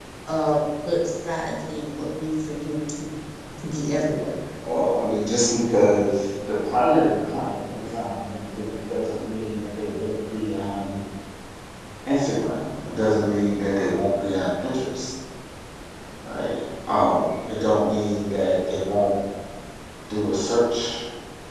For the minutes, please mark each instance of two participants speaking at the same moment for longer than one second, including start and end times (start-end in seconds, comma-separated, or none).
none